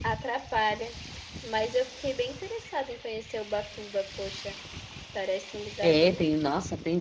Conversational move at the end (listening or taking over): taking over